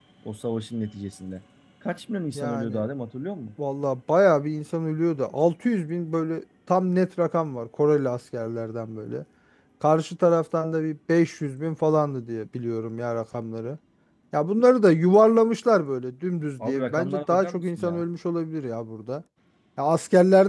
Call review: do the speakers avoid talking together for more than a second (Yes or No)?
No